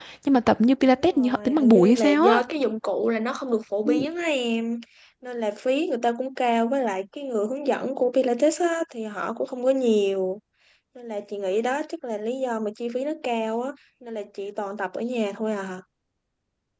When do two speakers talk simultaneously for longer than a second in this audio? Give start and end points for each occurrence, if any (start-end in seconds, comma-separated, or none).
0.9-2.4